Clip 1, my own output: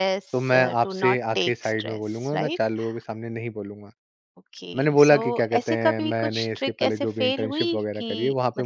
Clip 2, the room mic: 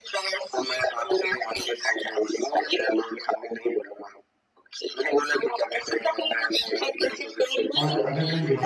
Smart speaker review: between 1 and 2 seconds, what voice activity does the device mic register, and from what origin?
echo only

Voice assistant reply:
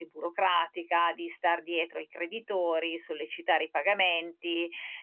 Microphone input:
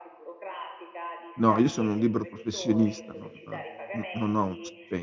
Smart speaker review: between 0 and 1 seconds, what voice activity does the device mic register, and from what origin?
echo only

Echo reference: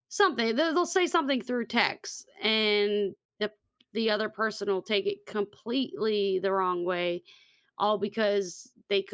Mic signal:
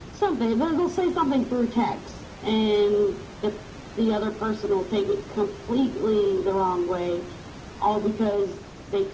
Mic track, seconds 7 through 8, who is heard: echo only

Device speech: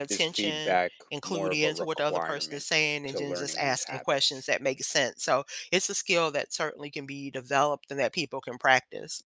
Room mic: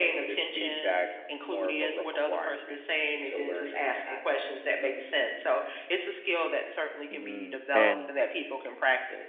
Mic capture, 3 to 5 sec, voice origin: echo only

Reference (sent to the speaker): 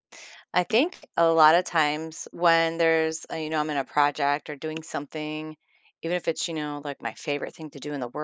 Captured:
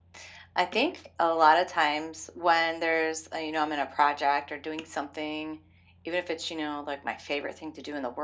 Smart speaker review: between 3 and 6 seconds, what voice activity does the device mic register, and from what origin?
echo only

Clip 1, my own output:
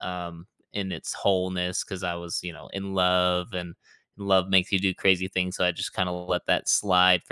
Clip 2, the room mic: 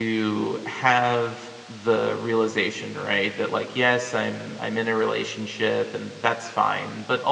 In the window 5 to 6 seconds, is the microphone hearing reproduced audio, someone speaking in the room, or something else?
user only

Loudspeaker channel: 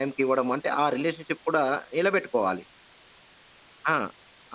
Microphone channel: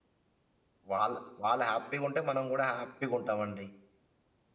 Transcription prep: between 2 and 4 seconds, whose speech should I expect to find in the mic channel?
user only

